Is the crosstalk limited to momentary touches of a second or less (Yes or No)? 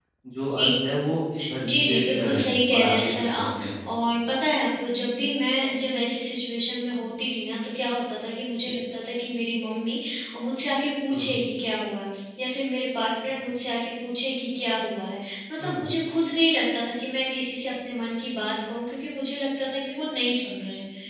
No